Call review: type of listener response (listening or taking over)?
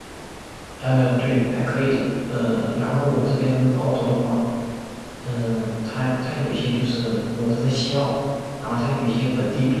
listening